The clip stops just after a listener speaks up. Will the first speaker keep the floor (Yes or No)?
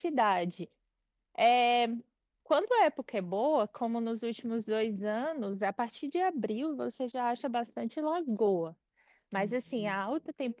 Yes